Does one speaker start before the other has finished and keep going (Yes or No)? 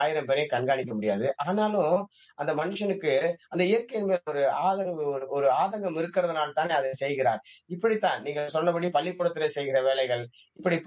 No